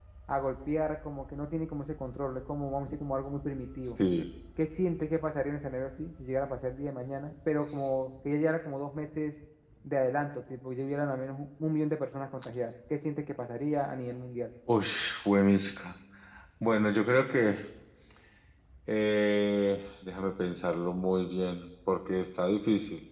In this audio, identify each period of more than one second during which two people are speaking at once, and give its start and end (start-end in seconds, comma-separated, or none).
none